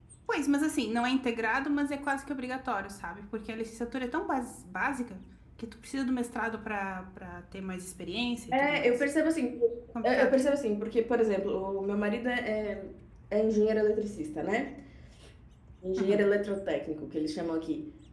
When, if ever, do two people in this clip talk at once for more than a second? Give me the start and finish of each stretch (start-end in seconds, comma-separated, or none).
none